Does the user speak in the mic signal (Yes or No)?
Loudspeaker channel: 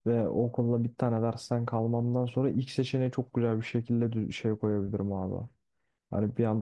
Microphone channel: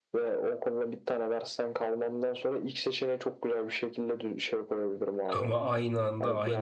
Yes